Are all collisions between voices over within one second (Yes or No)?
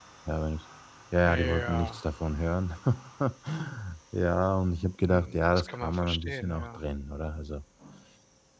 No